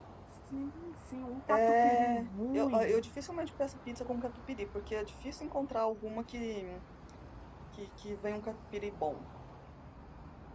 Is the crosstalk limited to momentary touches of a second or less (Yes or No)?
No